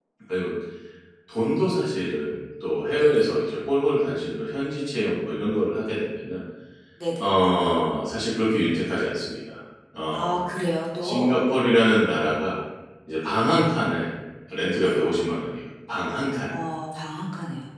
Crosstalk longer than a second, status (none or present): none